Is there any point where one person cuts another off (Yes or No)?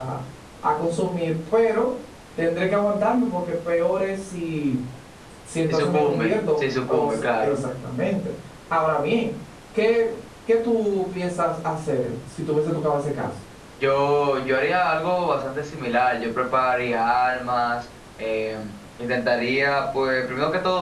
Yes